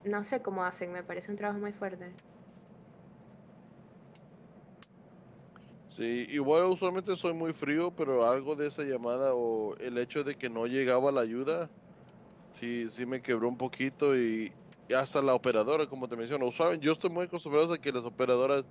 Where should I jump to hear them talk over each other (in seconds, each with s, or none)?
none